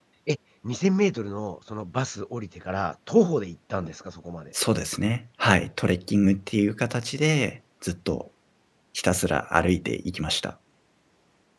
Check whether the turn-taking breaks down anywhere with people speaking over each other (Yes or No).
No